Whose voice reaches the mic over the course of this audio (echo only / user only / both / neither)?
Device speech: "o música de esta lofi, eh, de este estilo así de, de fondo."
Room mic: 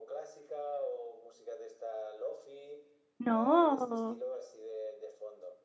both